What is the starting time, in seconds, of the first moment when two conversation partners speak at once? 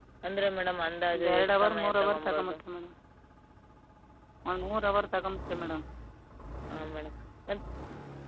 1.1 s

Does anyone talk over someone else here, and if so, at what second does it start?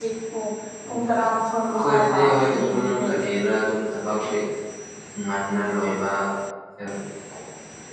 1.8 s

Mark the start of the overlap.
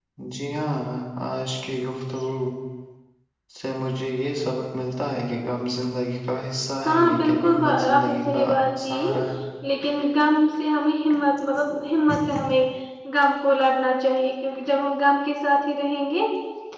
6.9 s

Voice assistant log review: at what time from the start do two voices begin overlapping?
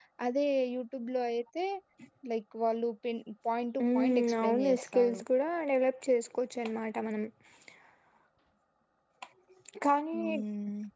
3.8 s

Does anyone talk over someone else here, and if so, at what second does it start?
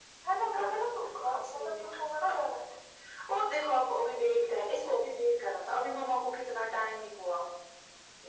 0.5 s

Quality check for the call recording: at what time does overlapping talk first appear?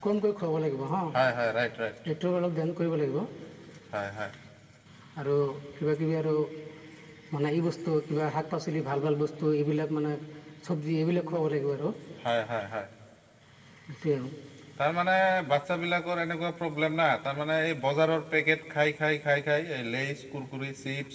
none

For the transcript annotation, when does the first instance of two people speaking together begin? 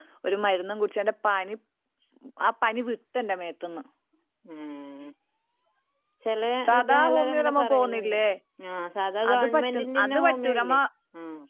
6.7 s

